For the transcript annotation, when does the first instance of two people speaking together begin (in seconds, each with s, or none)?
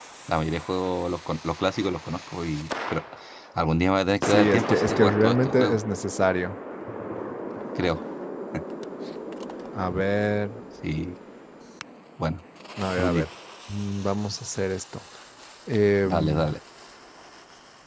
4.2 s